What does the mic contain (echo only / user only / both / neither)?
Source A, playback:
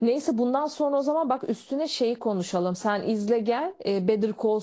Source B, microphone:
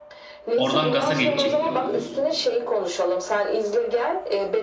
both